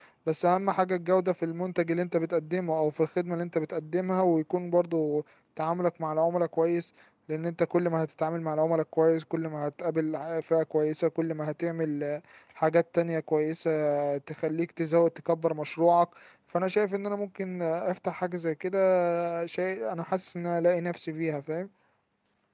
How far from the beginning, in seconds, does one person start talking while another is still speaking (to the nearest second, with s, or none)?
none